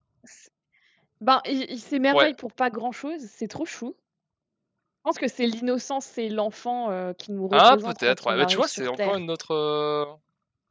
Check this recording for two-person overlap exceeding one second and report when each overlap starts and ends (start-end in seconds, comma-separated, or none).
7.5-9.2